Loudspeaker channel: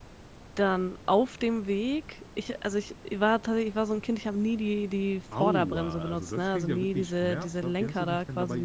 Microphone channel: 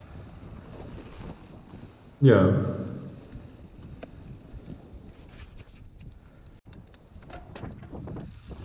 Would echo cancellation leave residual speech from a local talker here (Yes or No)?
Yes